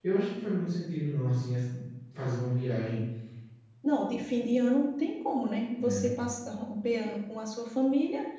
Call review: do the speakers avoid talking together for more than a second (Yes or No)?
Yes